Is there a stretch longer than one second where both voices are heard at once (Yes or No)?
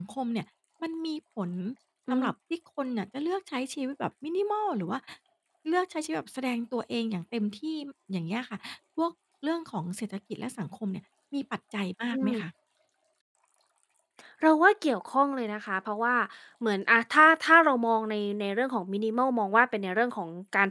No